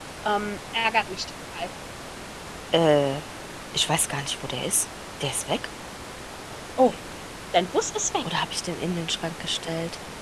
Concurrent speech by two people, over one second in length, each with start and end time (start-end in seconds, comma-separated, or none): none